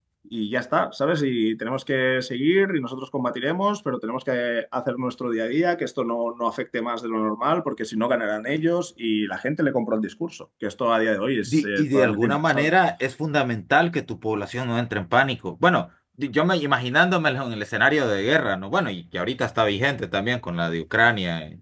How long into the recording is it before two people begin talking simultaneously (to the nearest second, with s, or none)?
11 s